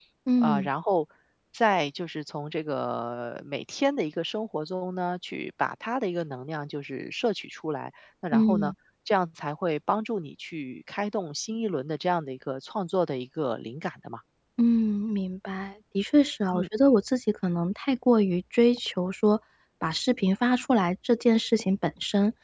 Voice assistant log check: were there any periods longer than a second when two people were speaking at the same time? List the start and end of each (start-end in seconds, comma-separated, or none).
none